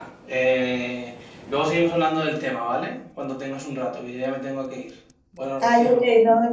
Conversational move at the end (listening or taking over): taking over